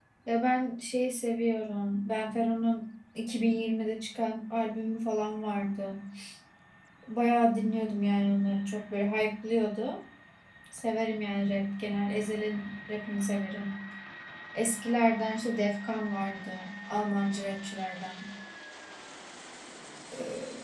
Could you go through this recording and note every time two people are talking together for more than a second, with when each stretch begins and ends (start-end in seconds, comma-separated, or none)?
none